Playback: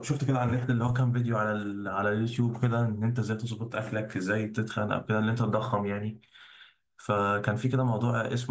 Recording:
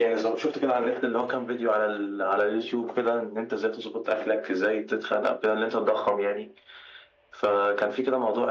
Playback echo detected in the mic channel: Yes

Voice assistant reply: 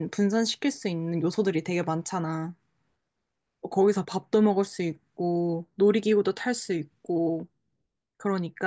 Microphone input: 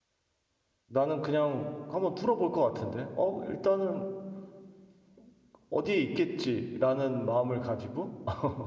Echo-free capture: Yes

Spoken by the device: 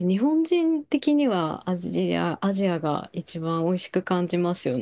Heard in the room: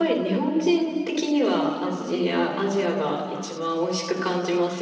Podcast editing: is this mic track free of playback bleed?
No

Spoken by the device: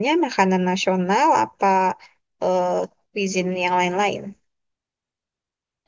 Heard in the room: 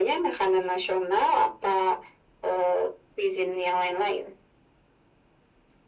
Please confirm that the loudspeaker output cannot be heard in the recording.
No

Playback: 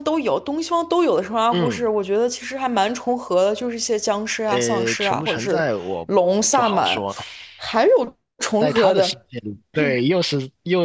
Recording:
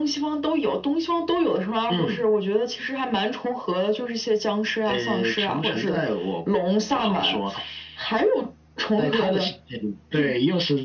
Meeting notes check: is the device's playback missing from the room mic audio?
No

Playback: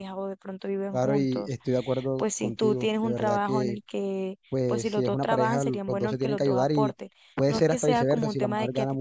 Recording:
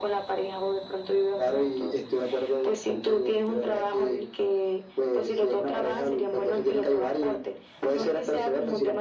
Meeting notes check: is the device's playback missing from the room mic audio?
No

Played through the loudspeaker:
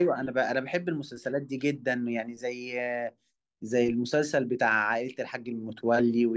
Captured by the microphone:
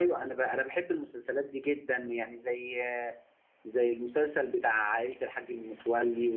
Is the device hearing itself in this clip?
Yes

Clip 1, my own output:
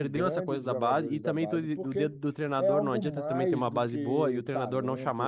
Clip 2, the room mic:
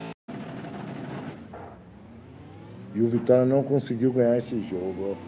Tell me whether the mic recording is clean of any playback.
Yes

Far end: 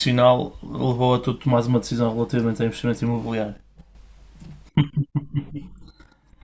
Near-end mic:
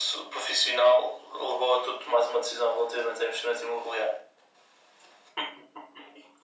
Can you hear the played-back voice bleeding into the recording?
Yes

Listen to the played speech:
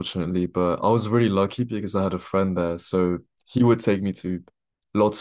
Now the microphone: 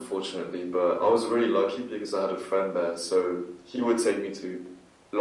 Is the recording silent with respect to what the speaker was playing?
No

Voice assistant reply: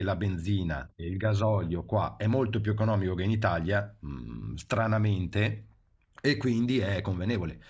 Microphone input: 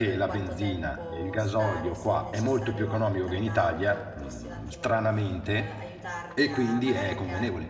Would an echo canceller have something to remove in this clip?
Yes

